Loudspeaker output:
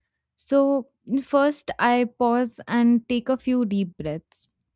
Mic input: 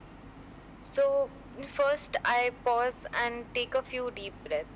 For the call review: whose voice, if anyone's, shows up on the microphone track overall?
echo only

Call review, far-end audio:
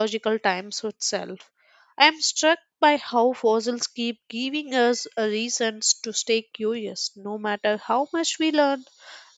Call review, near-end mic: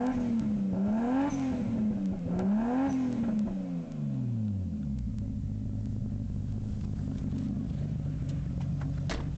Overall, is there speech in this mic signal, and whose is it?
neither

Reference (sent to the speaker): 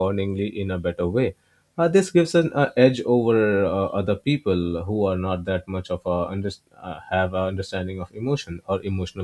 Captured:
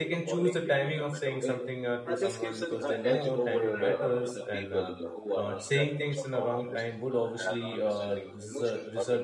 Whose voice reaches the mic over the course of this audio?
both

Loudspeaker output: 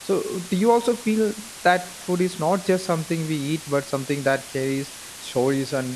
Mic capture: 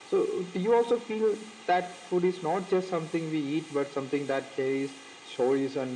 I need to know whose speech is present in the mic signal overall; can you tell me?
echo only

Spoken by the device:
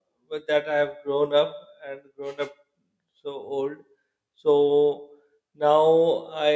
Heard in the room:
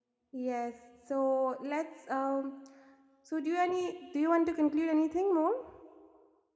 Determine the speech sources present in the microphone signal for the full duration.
user only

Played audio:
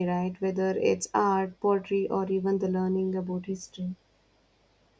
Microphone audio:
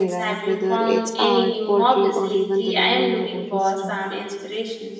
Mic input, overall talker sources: both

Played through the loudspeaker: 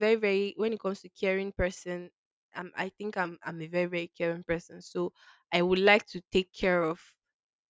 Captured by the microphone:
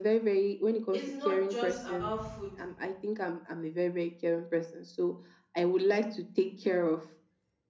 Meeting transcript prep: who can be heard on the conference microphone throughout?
both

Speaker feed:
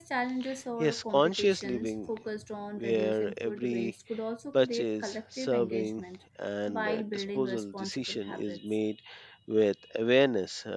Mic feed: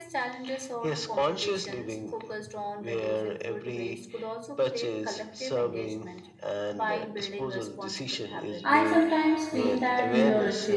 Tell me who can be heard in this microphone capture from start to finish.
both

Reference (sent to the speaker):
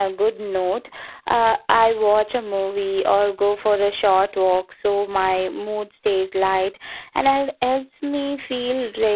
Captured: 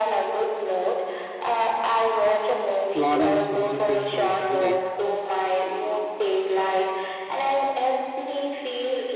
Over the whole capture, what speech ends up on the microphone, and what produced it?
both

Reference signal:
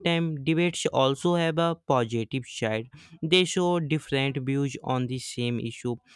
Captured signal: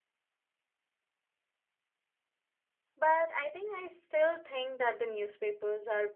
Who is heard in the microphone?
user only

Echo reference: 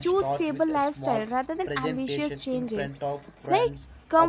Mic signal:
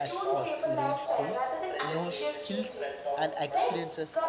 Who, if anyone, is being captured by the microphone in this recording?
both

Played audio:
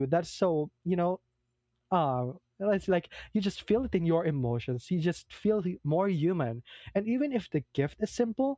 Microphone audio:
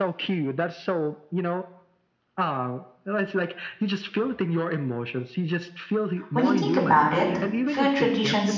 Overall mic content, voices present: both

